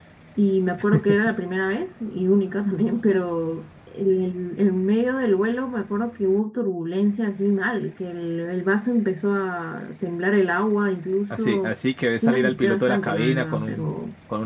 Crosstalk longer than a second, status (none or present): present